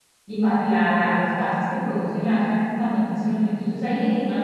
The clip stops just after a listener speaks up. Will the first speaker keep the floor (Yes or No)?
Yes